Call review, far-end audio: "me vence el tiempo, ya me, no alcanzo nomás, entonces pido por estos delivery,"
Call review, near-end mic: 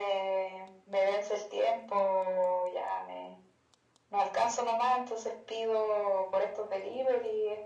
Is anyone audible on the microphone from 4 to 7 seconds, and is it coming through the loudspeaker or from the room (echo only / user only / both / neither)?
echo only